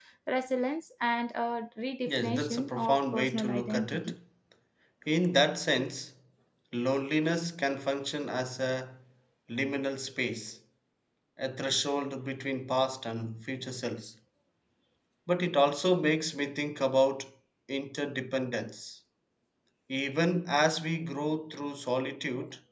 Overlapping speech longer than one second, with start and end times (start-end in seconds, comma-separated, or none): 2.1-4.1